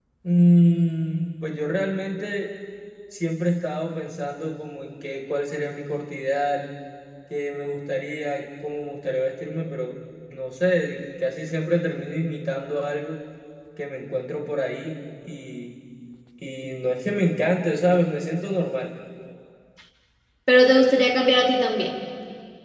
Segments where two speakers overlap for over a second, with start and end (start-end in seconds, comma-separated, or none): none